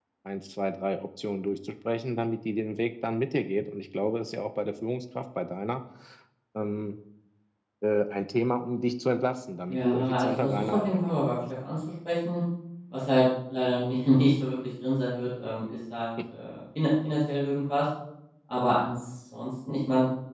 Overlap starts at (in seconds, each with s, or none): 9.7 s